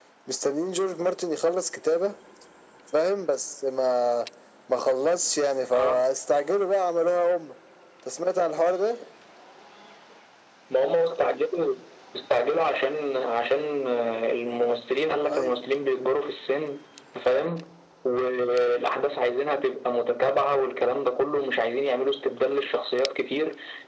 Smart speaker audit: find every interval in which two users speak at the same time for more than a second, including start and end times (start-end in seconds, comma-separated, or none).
none